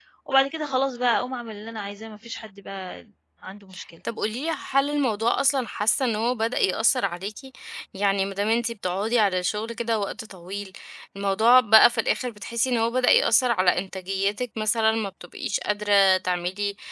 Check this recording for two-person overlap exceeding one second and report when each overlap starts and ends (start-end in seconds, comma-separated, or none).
none